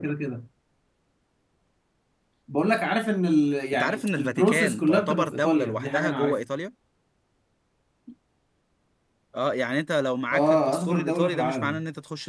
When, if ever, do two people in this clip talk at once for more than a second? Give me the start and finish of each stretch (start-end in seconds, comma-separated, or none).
3.7-6.4, 10.3-11.8